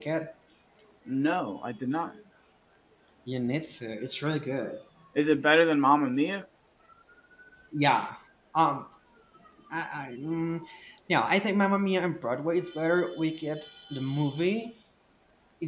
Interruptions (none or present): none